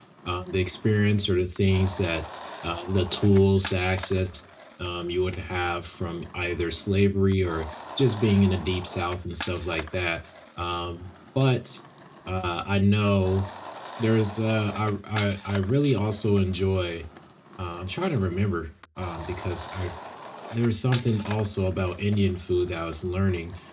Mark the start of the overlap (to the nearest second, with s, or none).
none